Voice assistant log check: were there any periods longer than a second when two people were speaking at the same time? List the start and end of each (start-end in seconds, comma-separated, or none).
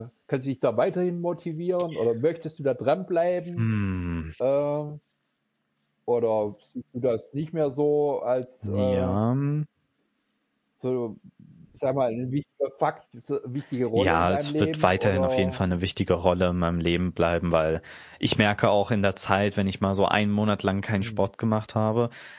13.9-15.6